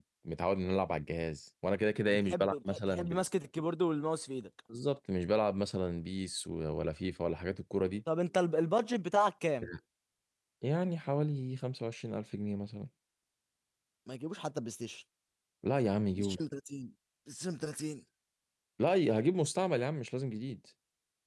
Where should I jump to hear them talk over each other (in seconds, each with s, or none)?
2.1 s